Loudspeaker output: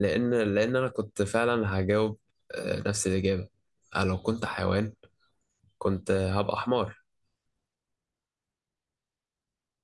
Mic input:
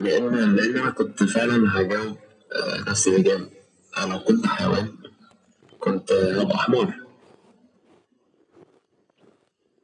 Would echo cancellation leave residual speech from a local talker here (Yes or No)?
No